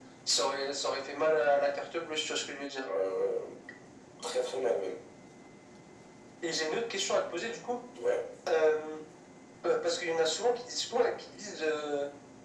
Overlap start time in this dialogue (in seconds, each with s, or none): none